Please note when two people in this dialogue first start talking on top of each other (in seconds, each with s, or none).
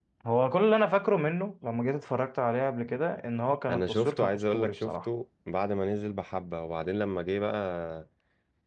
3.7 s